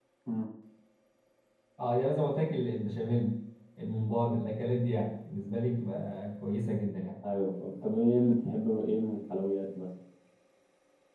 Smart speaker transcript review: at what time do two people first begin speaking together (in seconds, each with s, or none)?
none